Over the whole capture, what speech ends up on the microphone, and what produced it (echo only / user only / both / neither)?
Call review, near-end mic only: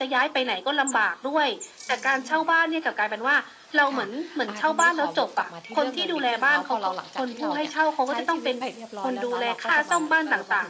both